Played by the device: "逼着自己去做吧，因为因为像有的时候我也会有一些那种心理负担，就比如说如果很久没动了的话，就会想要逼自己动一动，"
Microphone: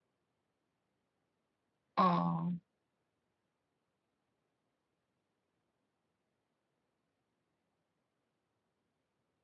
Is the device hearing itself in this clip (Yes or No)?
No